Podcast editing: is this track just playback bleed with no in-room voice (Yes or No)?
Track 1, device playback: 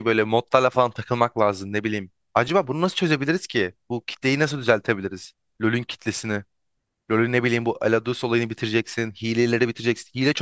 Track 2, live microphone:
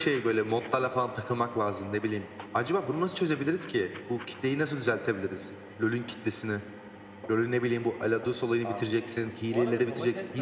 No